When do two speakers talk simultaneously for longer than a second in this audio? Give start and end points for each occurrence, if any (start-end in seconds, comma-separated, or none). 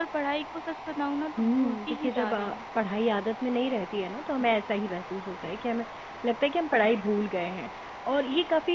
1.4-2.6